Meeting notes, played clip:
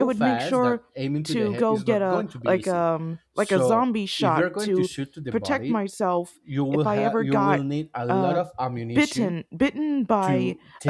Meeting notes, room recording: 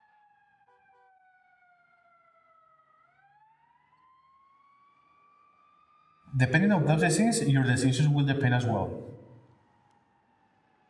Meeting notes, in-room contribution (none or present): present